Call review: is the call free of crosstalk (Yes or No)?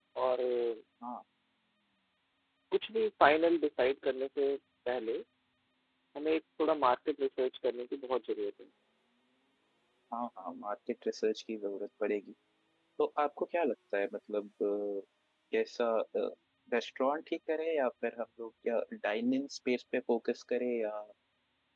Yes